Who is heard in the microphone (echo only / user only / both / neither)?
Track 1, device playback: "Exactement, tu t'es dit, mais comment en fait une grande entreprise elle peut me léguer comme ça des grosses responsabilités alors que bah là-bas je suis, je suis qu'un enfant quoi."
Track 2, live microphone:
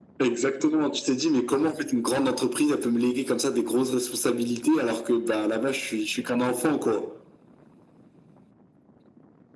echo only